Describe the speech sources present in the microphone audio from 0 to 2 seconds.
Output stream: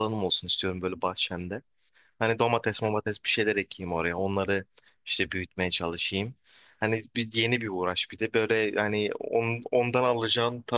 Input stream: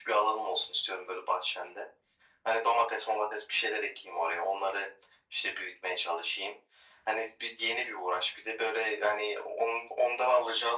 echo only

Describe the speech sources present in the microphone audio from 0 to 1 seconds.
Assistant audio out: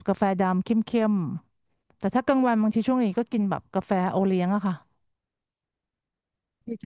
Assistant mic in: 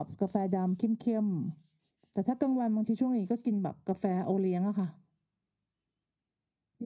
echo only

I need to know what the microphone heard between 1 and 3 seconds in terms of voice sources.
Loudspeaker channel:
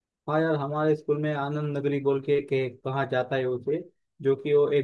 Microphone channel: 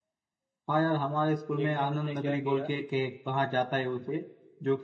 both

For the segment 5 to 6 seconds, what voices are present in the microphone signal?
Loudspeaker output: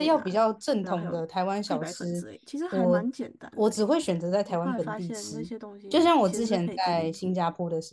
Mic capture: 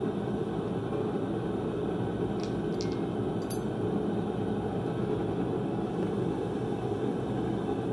neither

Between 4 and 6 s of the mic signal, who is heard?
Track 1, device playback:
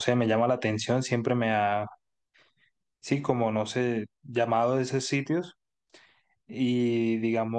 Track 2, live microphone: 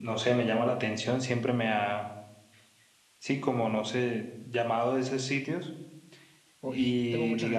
echo only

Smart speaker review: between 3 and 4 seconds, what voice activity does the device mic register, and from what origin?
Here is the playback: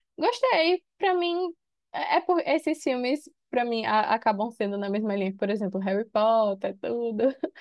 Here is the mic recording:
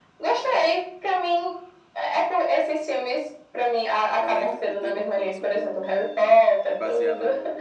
echo only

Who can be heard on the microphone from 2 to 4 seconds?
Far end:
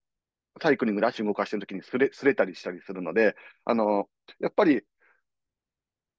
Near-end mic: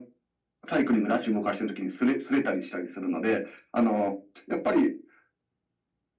echo only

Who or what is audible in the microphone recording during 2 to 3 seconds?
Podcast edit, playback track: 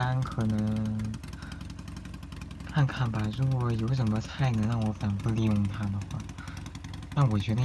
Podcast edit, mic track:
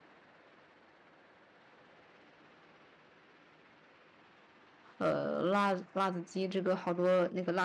neither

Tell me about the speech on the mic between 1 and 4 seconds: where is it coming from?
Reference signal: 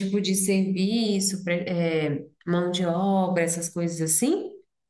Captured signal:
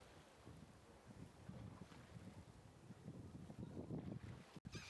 neither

